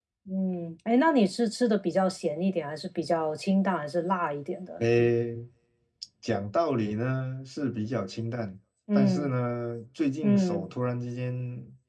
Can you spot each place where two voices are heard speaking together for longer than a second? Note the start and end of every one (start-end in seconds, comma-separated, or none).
none